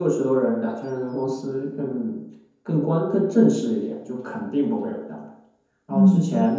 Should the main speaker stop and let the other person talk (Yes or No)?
No